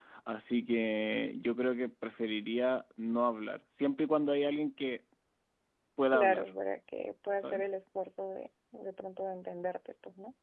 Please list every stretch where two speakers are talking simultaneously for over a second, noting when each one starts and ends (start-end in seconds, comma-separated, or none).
none